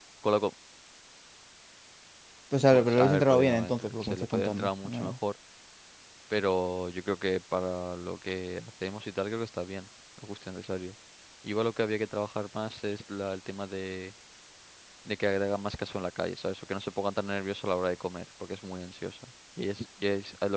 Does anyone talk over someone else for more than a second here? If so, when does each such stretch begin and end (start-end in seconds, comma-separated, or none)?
2.7-5.1